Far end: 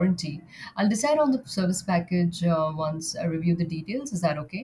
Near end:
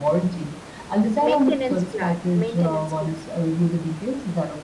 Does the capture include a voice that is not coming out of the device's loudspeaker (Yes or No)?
Yes